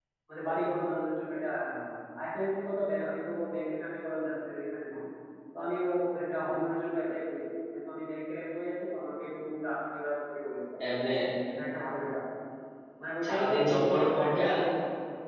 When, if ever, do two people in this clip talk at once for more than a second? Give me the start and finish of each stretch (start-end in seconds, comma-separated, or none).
13.2-14.5